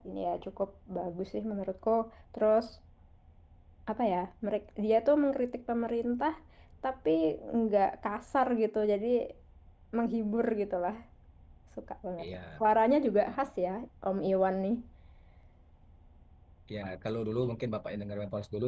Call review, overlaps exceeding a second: none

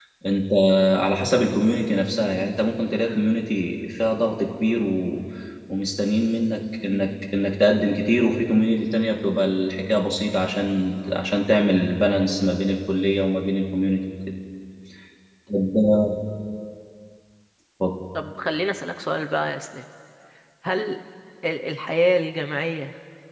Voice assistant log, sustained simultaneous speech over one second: none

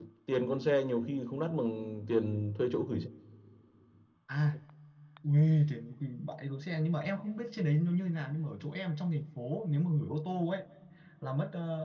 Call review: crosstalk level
none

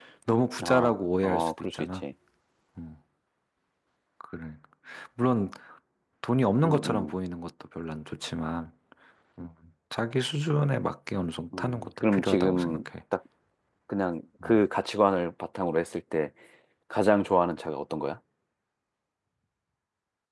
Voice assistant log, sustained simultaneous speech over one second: present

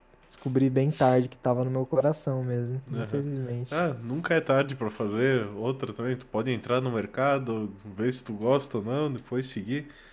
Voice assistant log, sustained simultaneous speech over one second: none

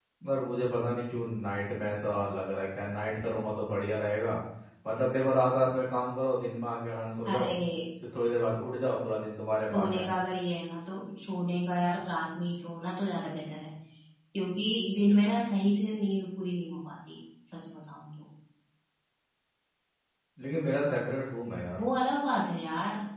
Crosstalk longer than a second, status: none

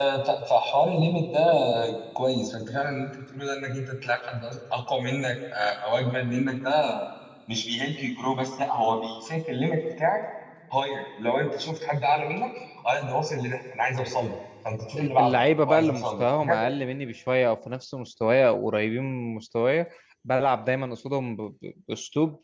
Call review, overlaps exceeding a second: present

